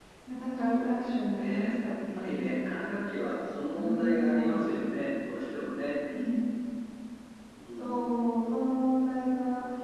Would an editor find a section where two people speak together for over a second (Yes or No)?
Yes